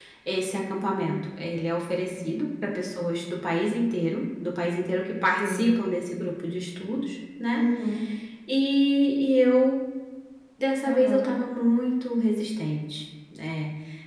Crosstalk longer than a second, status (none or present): none